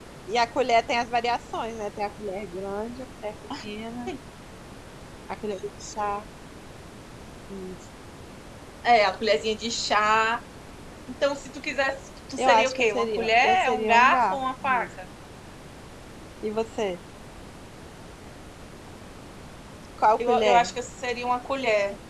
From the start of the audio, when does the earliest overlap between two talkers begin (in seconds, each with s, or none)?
12.4 s